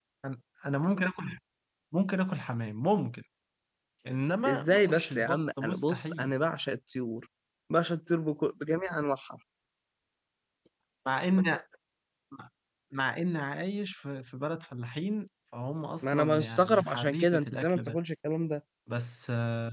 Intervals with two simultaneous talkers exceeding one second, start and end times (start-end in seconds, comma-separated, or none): 4.5-6.3, 16.0-18.0